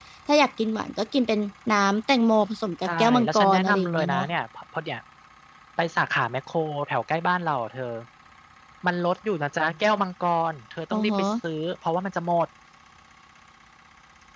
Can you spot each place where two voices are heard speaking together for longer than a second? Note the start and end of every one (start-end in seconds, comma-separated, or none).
2.8-4.2